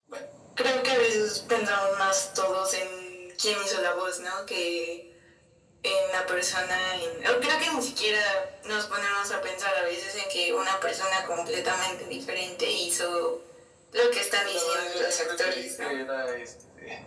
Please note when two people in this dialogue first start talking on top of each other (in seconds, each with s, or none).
14.4 s